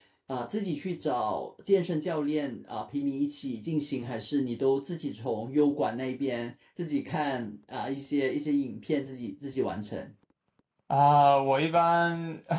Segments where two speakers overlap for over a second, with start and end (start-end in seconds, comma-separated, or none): none